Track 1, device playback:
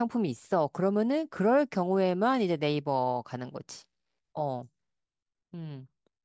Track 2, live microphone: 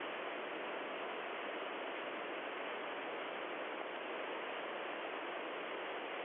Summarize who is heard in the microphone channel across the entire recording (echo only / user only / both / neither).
neither